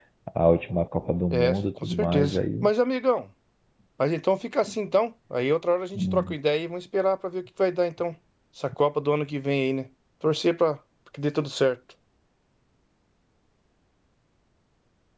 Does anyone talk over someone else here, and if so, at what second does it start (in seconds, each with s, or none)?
1.3 s